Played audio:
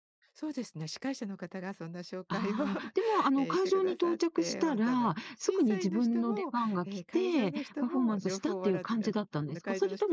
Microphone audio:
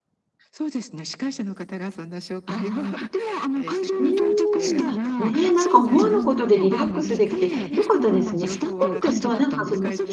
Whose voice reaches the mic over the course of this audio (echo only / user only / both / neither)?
both